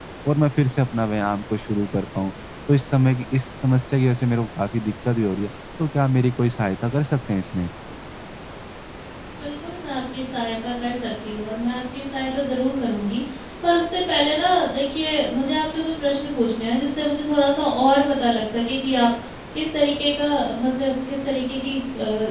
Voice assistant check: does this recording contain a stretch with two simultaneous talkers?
No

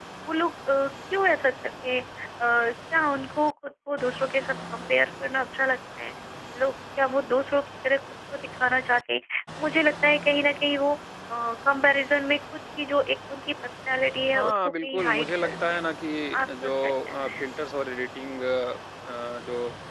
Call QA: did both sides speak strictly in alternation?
No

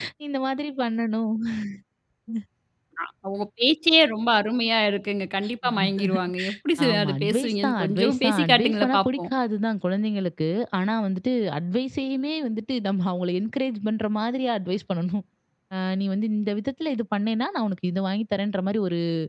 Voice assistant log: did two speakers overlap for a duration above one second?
Yes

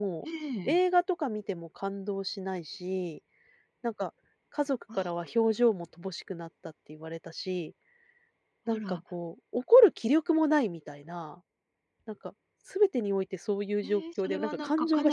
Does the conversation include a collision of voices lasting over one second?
Yes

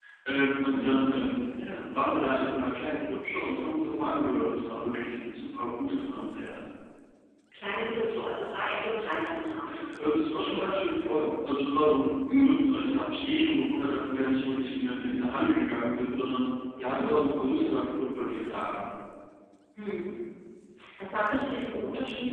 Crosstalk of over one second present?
No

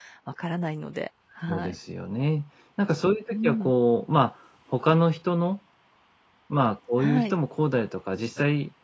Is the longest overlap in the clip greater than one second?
No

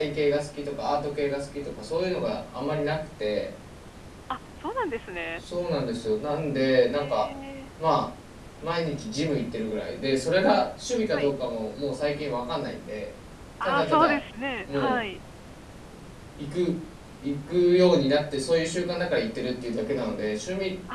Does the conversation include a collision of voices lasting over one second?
No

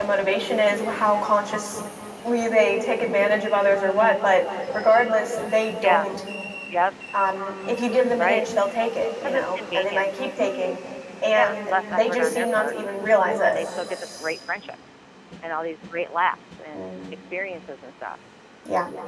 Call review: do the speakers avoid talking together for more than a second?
No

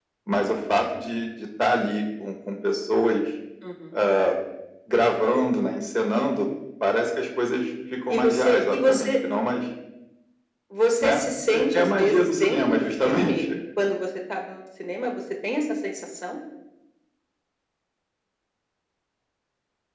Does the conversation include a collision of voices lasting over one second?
Yes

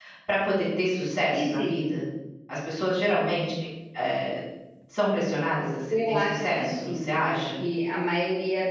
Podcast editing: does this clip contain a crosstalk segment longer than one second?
Yes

